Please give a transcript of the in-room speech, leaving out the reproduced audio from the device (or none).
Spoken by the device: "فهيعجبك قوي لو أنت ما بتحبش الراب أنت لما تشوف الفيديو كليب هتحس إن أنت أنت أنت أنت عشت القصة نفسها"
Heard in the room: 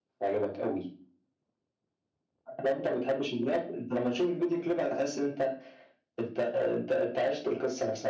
none